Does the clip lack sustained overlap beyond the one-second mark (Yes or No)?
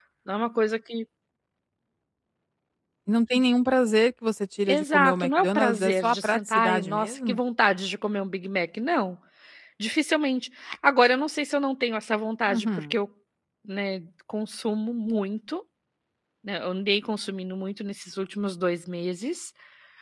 No